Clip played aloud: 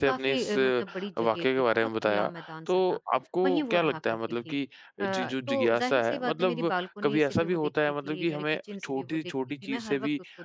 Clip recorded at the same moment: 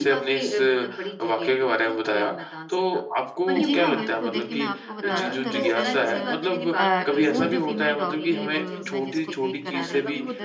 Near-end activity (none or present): present